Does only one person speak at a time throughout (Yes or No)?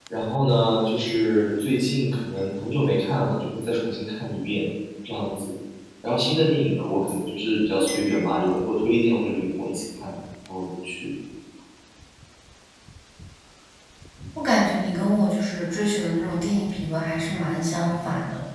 Yes